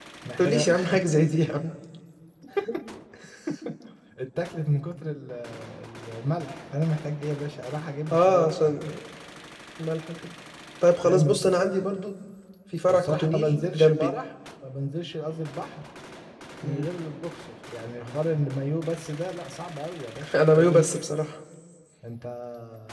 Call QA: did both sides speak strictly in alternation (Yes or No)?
No